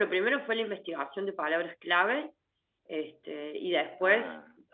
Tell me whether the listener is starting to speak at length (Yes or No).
No